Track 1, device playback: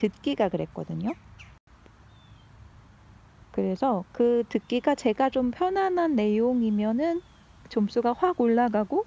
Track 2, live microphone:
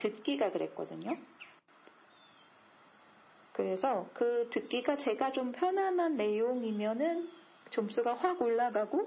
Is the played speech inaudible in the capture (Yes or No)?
No